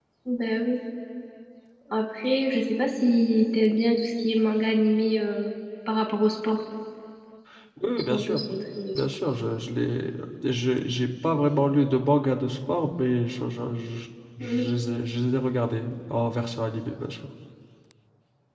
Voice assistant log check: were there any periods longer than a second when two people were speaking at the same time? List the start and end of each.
none

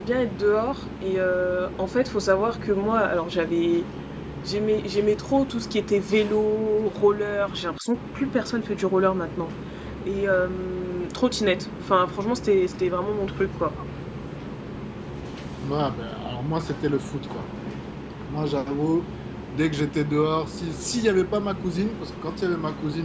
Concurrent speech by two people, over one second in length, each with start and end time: none

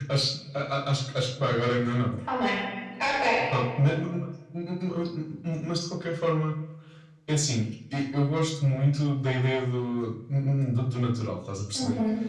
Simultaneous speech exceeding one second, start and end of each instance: none

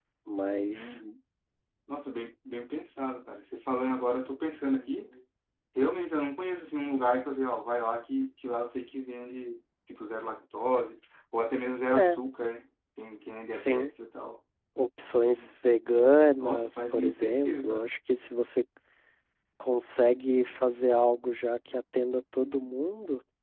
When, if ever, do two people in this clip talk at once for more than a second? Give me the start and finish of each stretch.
16.4-17.9

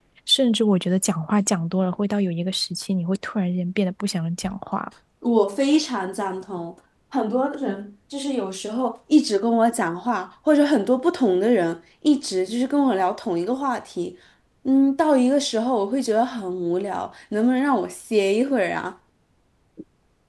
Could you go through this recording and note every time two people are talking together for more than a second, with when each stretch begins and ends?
none

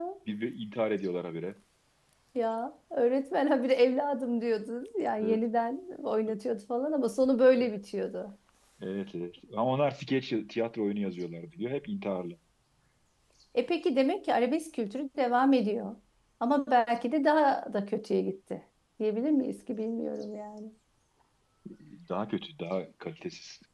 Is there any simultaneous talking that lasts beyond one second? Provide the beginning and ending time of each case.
none

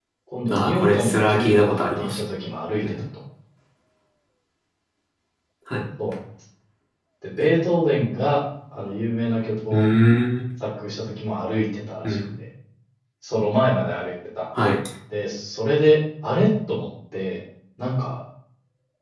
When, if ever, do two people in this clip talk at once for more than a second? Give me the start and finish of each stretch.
0.5-2.2

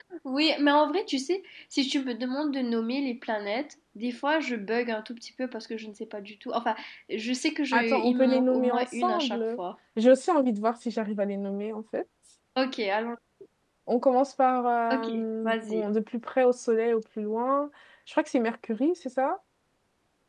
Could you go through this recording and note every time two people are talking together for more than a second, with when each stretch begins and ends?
7.7-9.6

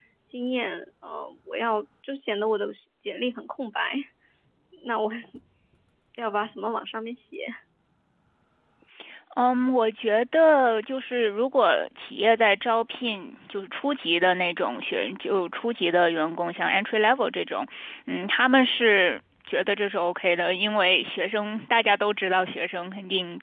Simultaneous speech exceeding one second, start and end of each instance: none

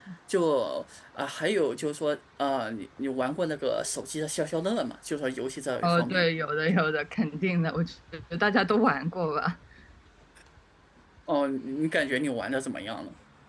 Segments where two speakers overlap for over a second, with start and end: none

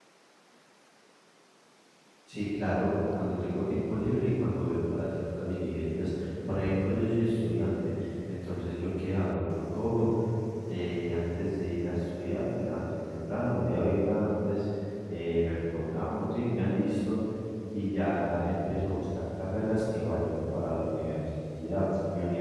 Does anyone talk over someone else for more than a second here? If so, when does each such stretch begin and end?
none

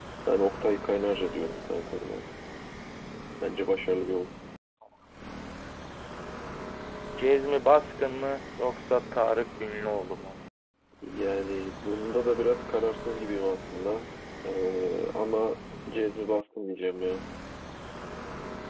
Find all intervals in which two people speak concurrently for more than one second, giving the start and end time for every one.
none

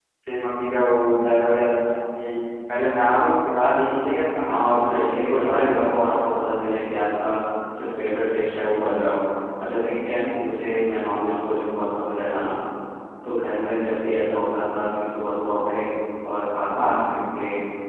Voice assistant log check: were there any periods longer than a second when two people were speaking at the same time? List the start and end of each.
4.4-5.9

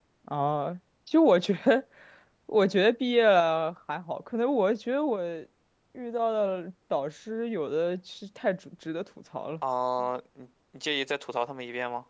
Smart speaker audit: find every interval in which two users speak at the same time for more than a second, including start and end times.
none

